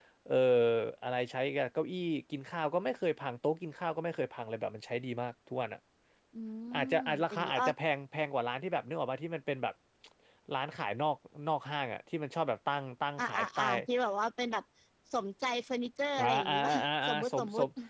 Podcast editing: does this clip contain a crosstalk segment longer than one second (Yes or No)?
Yes